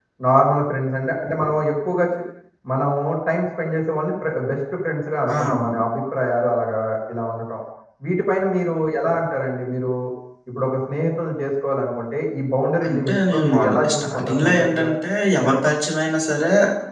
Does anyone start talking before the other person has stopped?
Yes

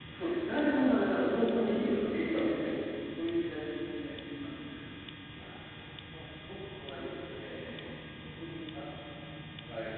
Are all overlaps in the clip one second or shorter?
No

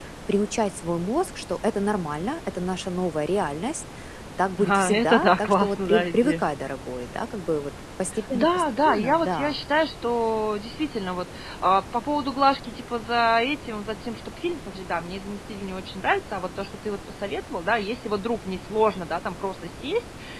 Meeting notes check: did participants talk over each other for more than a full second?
Yes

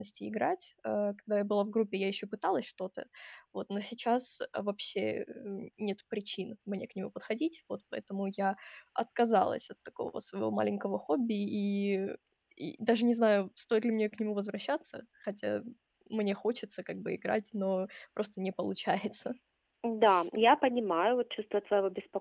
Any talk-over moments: No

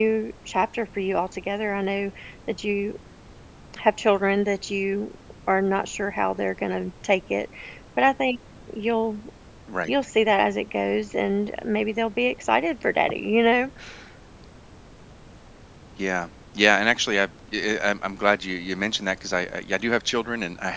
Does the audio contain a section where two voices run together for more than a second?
No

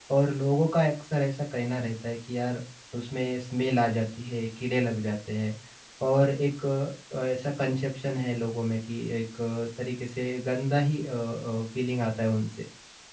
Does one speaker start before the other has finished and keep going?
No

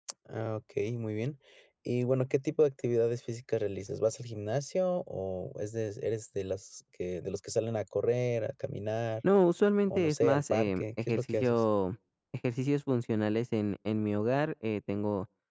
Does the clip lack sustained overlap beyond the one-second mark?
No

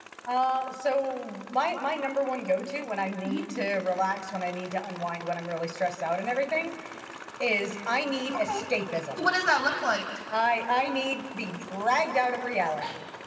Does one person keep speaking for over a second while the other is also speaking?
No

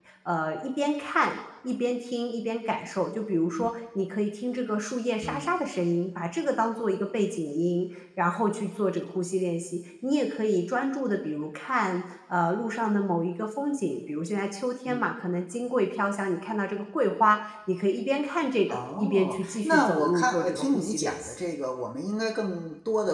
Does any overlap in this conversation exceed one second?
Yes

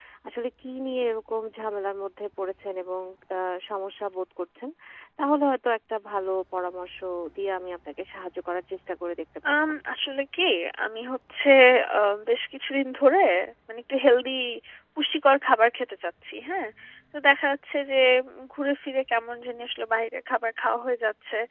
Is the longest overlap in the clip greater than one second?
No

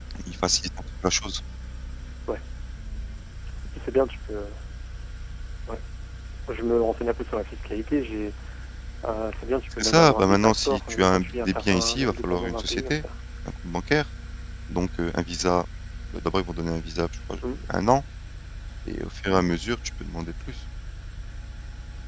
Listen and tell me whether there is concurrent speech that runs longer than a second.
Yes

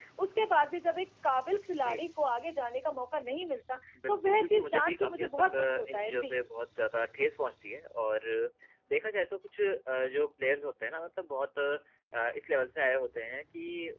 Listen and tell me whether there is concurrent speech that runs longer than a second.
Yes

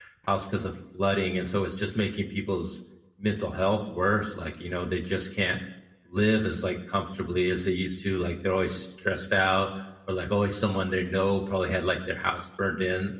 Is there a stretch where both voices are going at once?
No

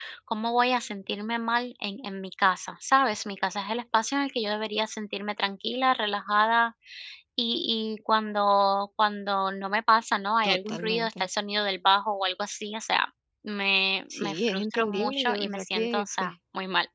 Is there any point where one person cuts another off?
Yes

